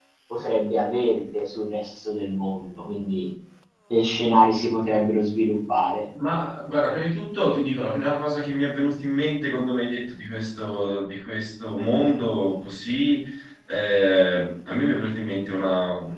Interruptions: none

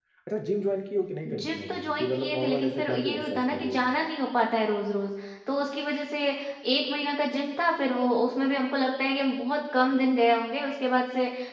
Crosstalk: present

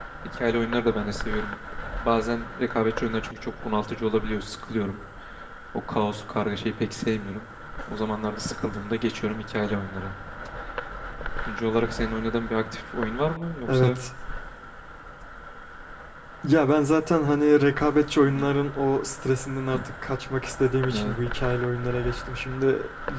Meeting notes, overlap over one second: none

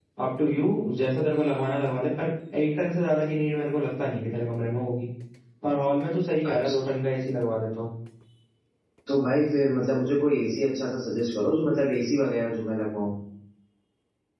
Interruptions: none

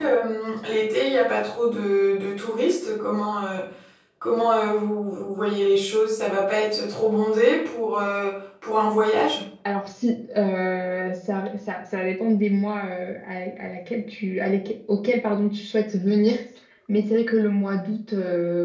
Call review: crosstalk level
none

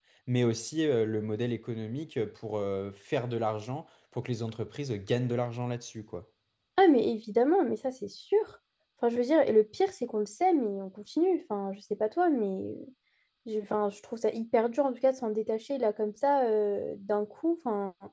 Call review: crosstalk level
none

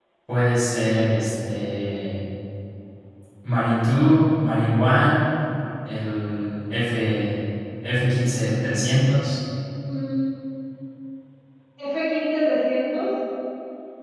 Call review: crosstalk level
none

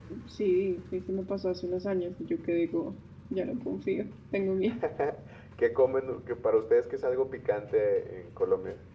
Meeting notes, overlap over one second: none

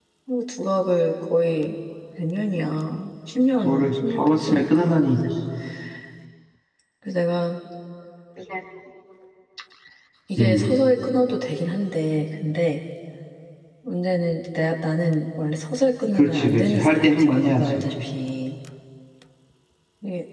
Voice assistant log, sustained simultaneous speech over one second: present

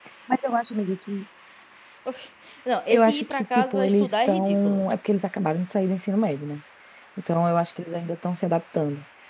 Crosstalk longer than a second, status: present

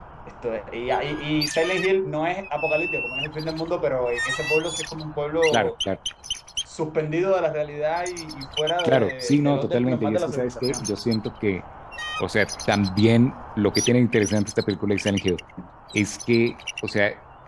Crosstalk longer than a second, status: present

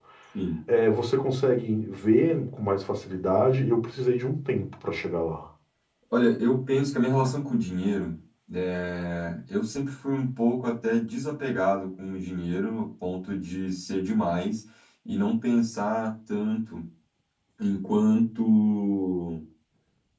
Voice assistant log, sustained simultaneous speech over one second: none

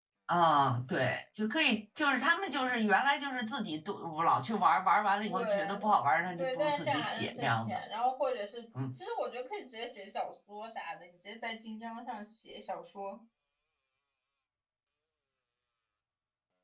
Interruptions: present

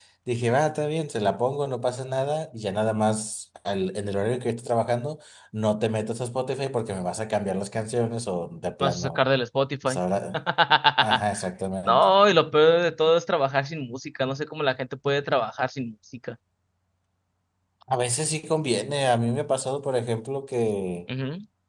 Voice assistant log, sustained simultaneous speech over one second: none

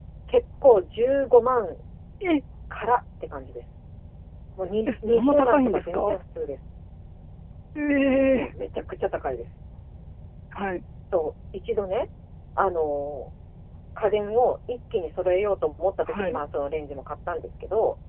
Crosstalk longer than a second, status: present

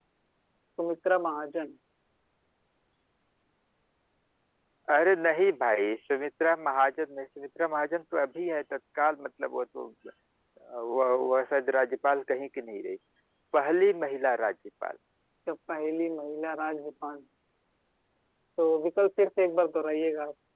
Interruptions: none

